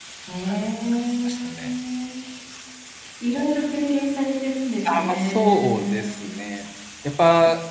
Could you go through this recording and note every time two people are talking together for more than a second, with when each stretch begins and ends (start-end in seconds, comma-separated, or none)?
4.9-6.3